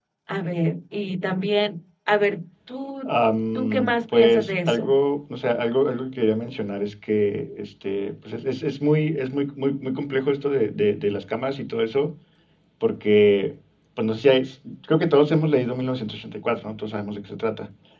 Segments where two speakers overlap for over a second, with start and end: 3.5-4.9

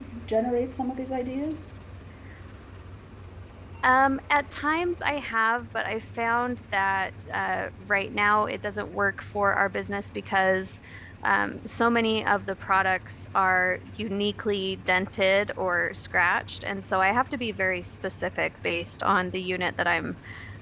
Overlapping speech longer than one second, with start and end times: none

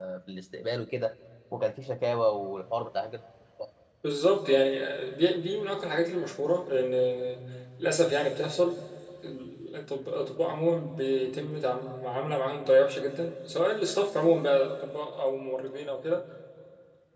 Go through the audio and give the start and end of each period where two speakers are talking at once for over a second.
none

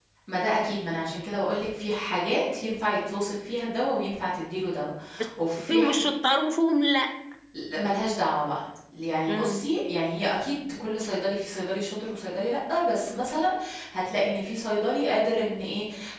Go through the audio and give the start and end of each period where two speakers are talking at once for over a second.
none

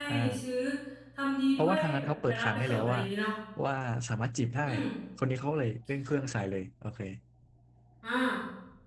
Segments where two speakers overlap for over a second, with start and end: 1.6-3.0

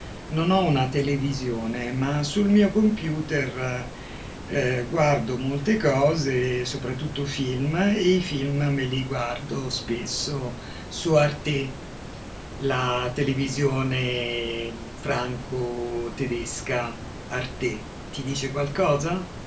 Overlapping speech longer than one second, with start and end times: none

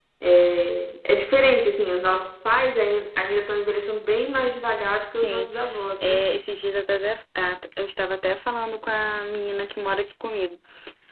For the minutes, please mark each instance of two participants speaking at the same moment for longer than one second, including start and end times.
none

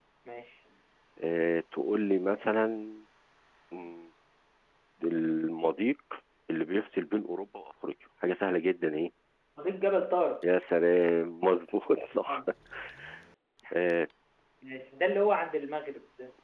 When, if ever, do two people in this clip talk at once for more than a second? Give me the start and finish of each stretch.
none

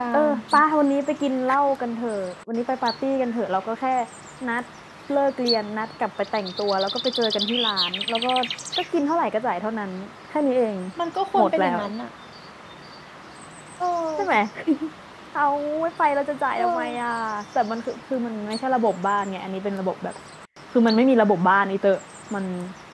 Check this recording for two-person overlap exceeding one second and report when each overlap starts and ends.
none

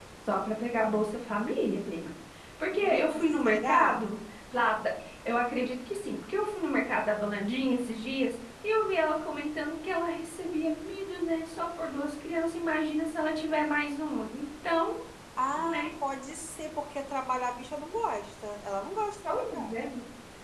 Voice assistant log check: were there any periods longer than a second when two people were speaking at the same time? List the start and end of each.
2.7-4.0

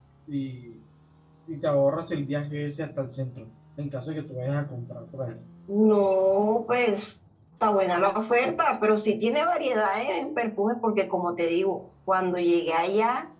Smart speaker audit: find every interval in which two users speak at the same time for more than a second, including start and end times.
none

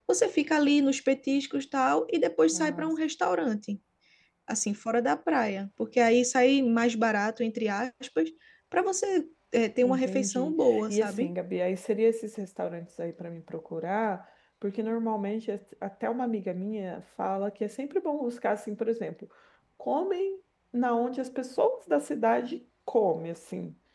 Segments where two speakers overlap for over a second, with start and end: 9.8-11.3

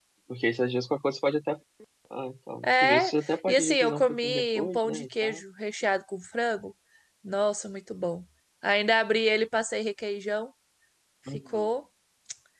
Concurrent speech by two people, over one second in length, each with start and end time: 2.6-5.4

